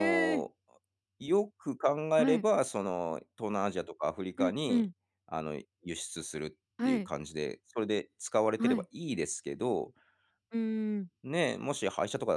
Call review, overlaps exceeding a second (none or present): none